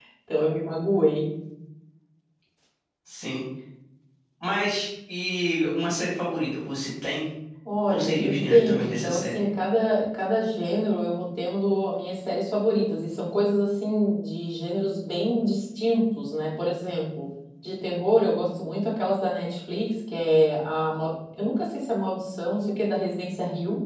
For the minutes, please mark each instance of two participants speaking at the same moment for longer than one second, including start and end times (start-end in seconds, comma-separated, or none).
7.9-9.4